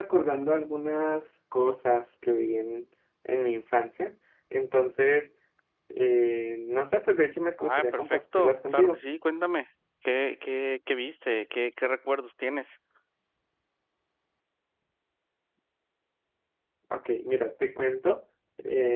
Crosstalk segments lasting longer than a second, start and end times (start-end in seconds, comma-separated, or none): 7.6-9.0